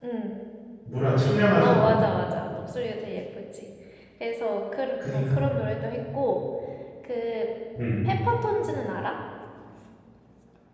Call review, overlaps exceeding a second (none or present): none